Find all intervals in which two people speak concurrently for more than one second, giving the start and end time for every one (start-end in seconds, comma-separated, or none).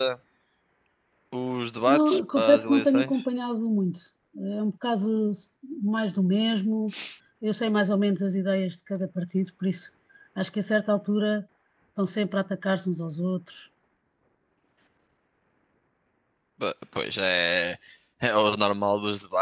1.9-3.2